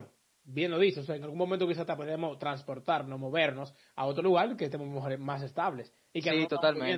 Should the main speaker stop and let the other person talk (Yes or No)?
Yes